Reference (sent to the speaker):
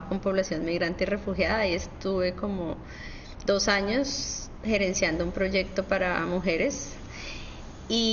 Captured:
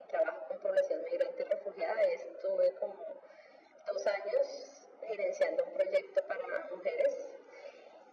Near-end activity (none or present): none